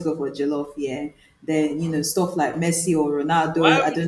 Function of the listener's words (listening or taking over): taking over